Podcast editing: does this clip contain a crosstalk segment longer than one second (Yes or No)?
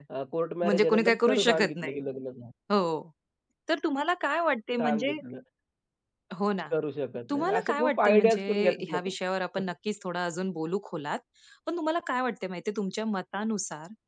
Yes